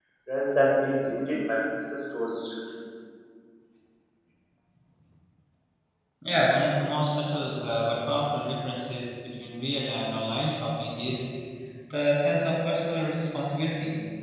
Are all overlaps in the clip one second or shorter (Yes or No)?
Yes